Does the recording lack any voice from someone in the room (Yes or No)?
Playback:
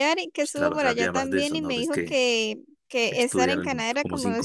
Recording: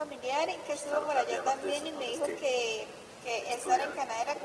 Yes